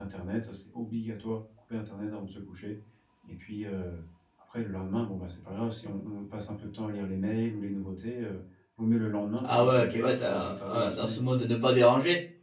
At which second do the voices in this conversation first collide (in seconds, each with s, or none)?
9.4 s